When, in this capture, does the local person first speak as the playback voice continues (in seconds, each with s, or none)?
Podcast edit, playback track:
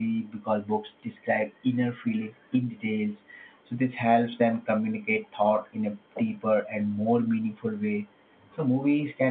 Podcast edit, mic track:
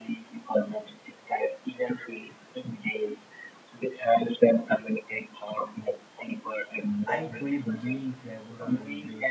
7.0 s